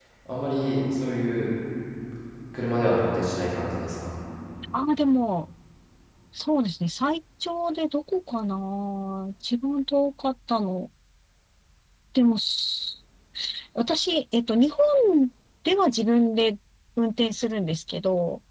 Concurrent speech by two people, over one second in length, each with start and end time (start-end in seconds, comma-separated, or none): none